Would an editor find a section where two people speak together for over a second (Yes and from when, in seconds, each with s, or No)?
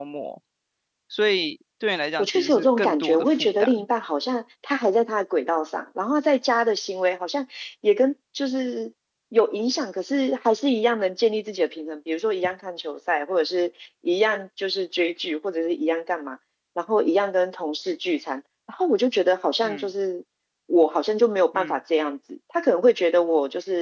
Yes, from 2.2 s